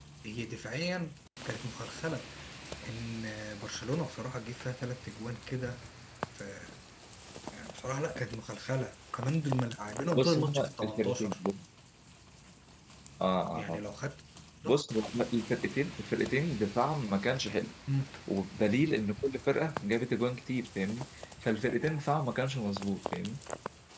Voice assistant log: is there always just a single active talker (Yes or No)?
No